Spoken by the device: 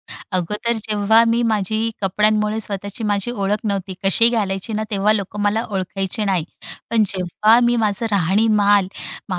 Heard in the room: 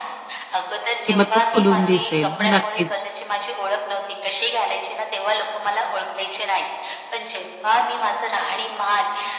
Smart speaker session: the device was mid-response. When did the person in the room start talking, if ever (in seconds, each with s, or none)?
0.8 s